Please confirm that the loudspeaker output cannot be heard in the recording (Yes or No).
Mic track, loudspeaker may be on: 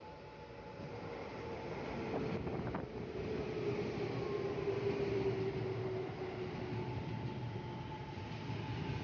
Yes